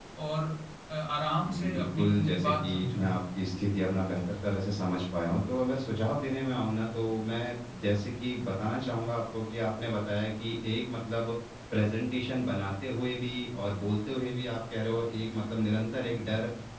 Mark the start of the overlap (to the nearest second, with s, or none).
1 s